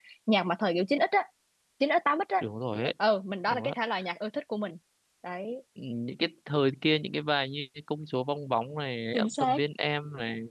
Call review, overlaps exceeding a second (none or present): none